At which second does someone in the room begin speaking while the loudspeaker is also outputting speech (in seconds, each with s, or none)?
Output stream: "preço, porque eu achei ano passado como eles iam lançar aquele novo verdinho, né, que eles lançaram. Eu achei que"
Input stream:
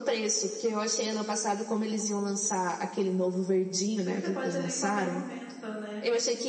4.0 s